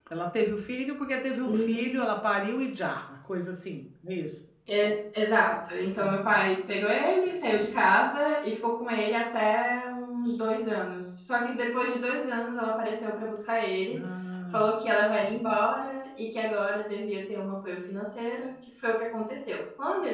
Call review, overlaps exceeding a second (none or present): none